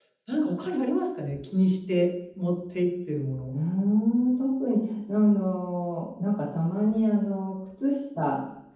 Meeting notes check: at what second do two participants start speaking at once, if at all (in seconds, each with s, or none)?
none